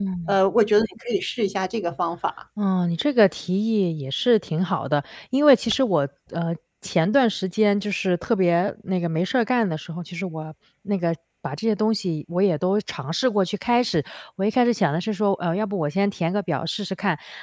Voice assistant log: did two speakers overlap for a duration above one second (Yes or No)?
No